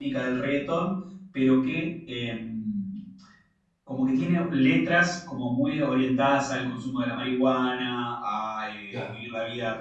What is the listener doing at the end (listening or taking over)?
listening